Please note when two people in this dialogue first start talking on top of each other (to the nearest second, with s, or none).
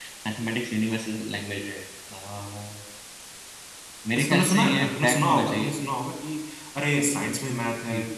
4 s